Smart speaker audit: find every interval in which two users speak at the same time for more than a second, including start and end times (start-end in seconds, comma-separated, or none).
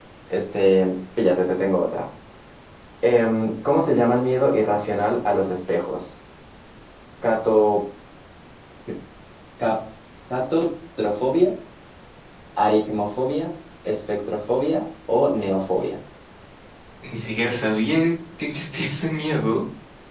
none